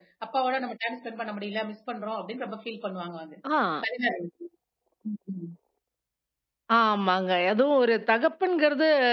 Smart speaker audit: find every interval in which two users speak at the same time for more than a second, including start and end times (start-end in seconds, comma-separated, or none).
none